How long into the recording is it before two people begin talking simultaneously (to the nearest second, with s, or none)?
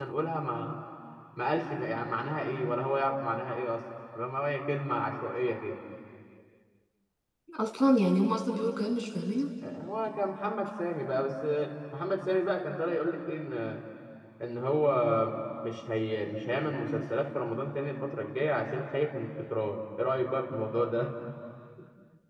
none